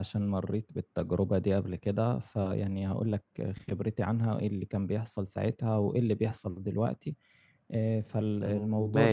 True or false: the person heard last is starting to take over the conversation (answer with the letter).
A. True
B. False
A